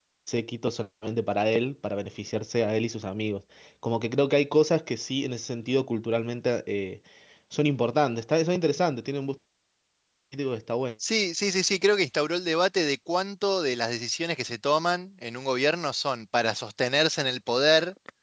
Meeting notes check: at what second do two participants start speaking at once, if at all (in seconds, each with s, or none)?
none